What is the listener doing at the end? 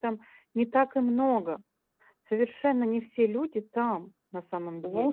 taking over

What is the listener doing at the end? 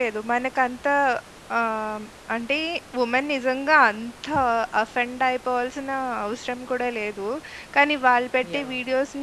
listening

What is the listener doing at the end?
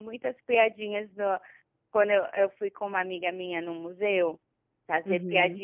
listening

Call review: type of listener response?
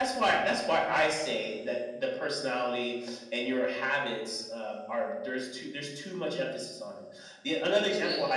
listening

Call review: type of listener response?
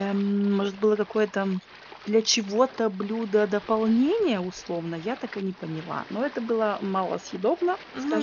taking over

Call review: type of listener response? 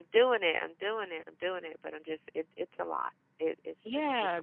taking over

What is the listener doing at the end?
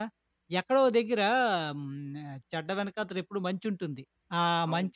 listening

